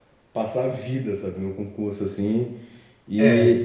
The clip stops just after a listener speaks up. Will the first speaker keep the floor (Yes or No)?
Yes